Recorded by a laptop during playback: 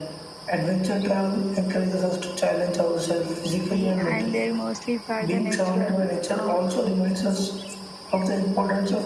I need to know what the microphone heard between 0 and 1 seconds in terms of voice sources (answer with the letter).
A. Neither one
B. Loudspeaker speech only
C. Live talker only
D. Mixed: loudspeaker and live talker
B